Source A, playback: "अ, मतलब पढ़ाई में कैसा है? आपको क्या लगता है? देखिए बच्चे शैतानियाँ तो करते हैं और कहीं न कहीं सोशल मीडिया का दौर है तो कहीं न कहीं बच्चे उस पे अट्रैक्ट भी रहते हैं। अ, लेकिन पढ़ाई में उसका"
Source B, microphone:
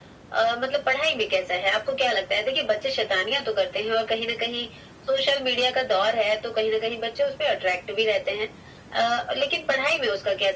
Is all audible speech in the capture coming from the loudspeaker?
Yes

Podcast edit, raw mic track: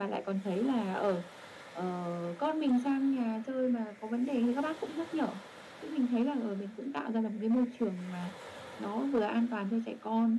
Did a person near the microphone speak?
No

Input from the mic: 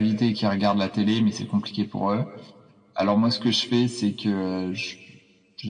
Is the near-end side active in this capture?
No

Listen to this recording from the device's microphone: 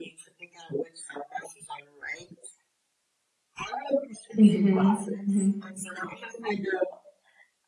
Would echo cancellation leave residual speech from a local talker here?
Yes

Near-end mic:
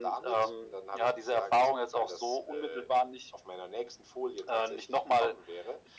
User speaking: No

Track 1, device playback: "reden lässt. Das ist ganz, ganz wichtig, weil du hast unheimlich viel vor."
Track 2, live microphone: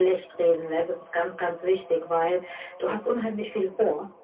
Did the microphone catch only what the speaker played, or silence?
Yes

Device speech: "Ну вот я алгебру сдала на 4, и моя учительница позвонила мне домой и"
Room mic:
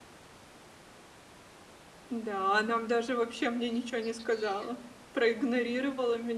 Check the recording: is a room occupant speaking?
Yes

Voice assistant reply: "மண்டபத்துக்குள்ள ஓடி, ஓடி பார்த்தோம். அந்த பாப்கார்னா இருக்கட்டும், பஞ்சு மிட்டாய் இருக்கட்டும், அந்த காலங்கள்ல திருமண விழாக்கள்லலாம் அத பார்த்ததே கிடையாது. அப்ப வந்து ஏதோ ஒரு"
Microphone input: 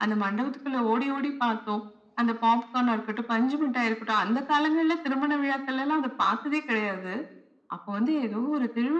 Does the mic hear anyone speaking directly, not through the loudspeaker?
No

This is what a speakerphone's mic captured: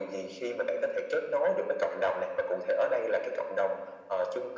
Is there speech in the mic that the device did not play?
No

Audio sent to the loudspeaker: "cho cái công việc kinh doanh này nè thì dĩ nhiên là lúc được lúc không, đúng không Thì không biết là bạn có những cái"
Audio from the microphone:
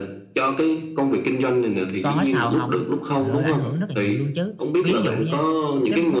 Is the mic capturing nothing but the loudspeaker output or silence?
No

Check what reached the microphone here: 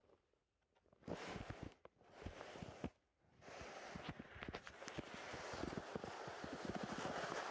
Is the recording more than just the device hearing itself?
No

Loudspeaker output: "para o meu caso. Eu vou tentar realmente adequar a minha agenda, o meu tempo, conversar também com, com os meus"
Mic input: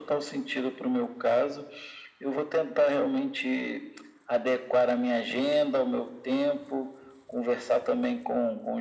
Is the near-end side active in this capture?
No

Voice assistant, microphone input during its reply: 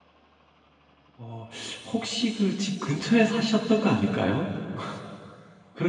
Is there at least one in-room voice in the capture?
Yes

